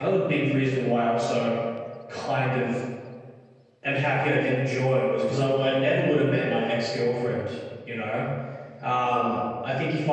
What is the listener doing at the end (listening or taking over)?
listening